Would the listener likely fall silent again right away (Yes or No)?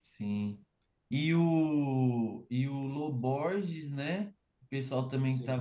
Yes